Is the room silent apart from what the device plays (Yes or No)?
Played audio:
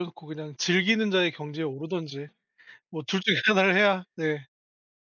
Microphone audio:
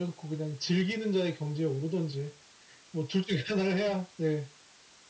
Yes